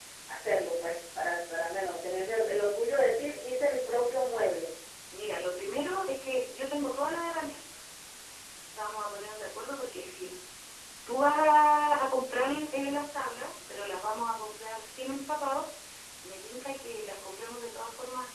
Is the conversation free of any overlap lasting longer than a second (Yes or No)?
Yes